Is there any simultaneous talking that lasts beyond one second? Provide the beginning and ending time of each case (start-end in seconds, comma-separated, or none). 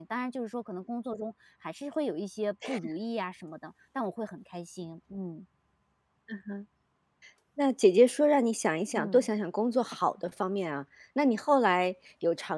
none